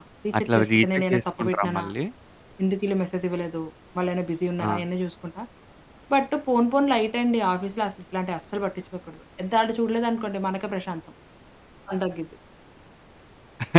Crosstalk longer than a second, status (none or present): present